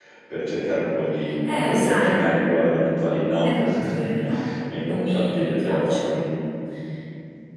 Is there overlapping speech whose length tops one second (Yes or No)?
Yes